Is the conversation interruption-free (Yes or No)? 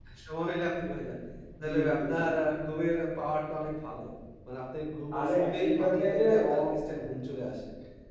No